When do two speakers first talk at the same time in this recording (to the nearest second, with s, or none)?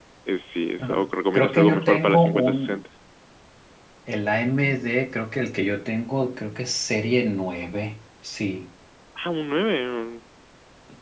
1 s